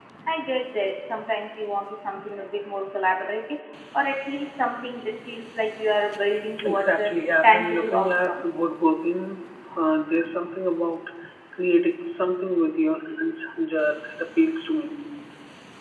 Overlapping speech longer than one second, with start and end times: 6.7-8.5

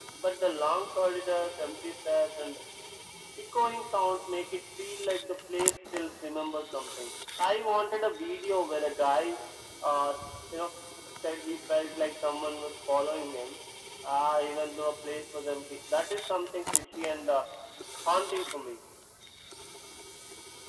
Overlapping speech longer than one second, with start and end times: none

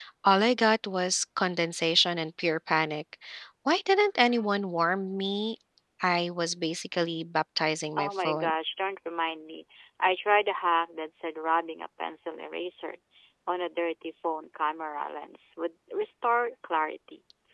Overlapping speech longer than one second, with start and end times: none

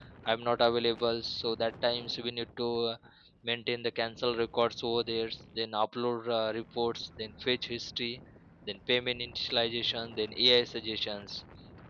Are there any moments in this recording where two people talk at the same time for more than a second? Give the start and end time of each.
none

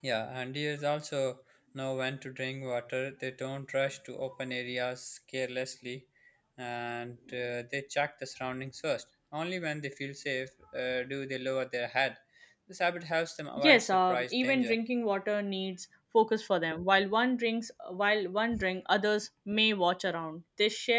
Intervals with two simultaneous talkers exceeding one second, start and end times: 13.6-14.8

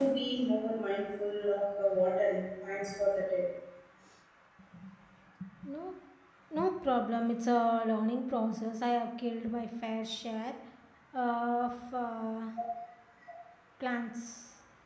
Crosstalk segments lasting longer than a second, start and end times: none

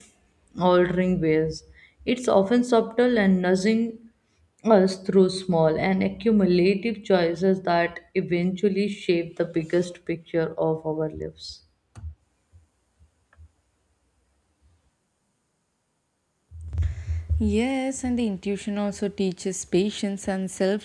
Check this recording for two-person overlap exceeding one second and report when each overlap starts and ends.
none

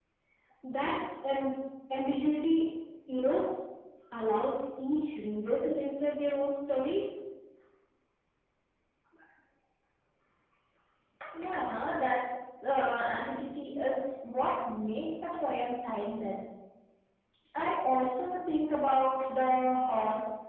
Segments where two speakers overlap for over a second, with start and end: none

